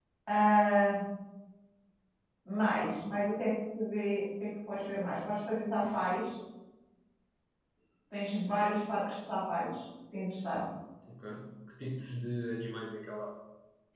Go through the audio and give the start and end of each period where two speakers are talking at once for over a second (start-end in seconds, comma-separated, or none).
none